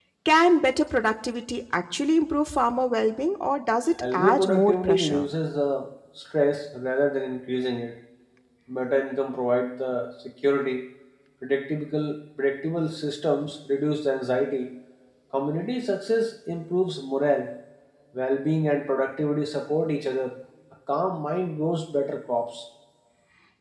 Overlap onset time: 4.0 s

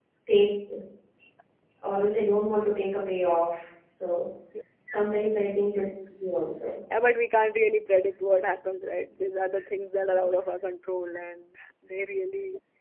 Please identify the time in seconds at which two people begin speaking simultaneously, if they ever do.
none

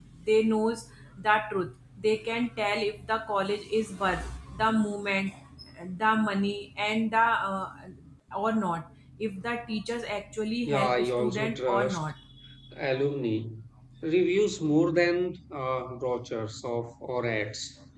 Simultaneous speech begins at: 10.7 s

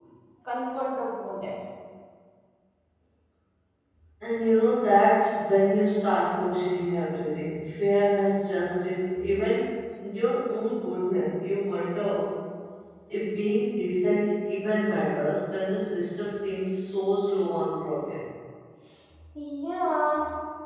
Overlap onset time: none

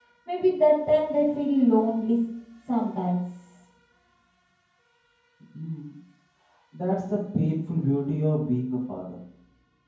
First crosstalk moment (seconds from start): none

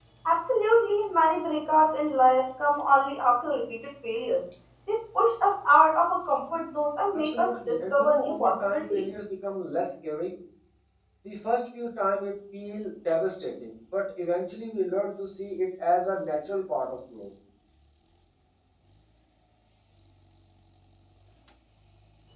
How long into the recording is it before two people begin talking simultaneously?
7.1 s

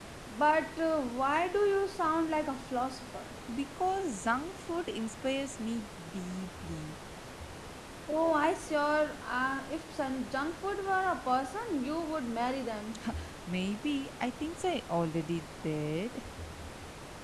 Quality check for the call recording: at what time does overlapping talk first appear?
none

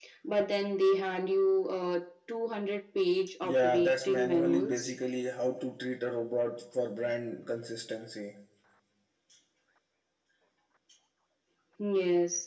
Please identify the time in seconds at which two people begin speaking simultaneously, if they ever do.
3.4 s

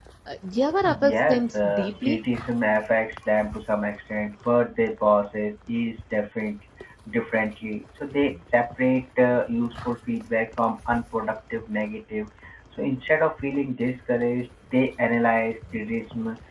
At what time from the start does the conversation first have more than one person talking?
1.0 s

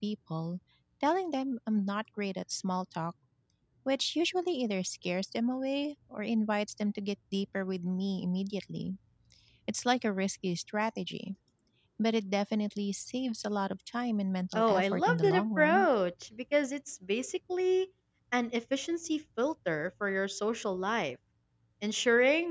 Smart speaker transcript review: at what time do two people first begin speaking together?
14.6 s

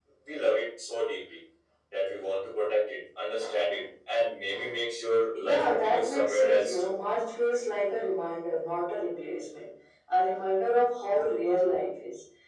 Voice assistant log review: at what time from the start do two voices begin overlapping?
5.3 s

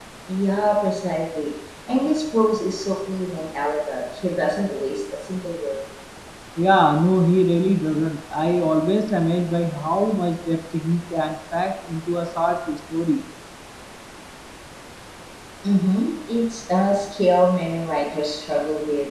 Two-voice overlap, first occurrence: none

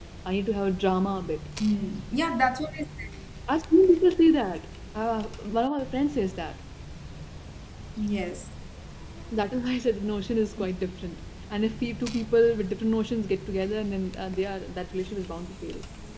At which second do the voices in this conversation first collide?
none

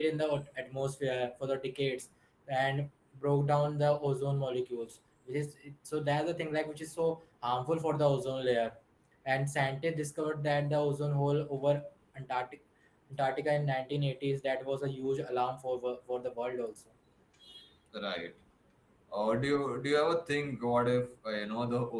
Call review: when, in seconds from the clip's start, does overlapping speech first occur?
none

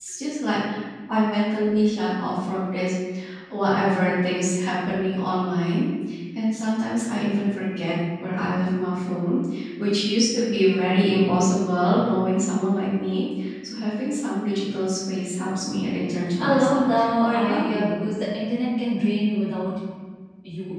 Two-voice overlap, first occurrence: 16.4 s

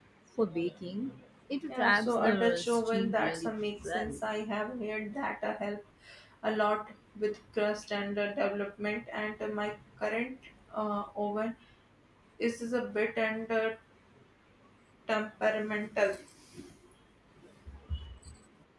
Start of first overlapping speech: 1.7 s

